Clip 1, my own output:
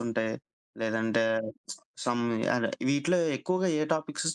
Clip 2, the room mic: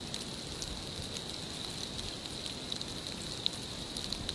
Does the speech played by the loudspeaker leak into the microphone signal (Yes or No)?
No